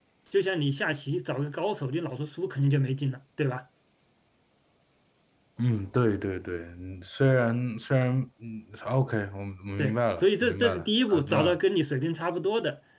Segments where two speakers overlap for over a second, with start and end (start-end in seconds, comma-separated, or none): 9.8-11.6